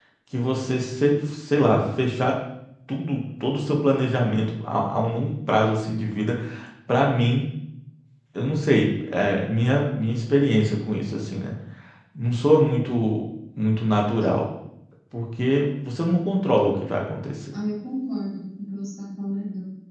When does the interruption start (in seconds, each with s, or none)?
none